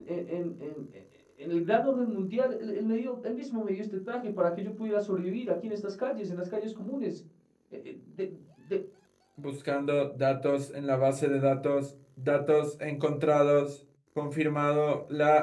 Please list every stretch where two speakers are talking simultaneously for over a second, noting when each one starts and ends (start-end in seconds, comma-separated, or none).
none